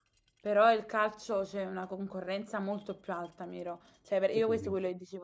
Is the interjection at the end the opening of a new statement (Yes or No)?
No